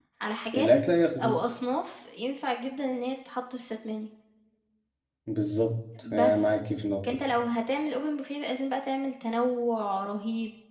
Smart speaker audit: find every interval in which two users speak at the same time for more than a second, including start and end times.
none

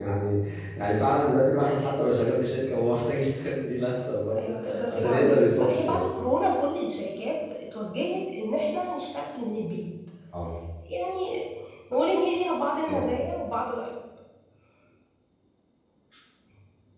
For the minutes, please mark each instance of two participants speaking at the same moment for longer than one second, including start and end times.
4.4-6.1

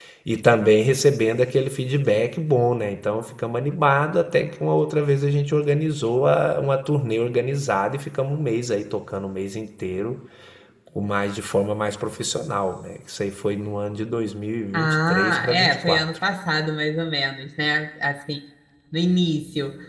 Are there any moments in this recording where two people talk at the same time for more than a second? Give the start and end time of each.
14.7-16.0

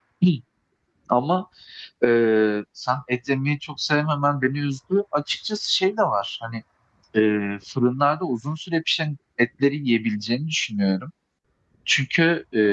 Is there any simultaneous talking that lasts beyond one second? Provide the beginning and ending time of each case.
none

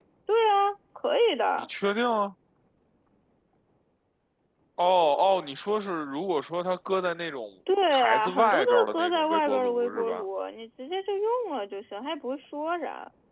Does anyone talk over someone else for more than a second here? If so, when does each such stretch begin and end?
7.9-10.2

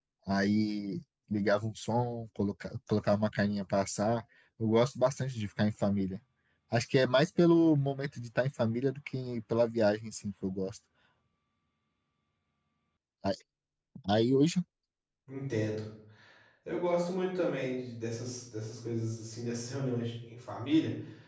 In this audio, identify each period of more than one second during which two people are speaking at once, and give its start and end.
none

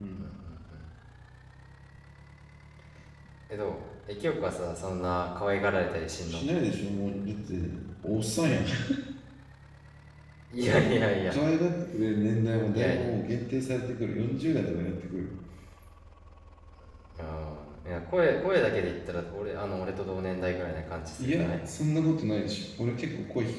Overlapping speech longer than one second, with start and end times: none

